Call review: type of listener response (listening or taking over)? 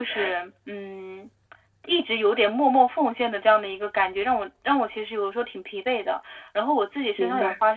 listening